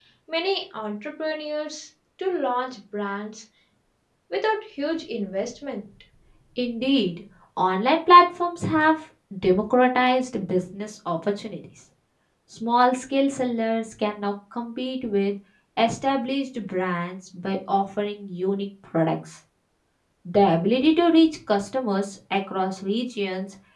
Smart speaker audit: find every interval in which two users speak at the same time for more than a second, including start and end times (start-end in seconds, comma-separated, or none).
none